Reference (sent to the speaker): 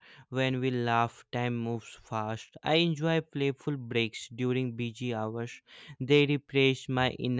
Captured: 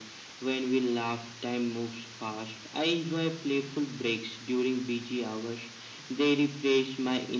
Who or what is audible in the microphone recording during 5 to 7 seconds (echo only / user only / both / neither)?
echo only